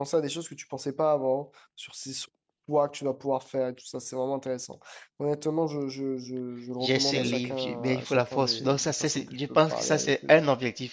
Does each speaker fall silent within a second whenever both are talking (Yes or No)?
No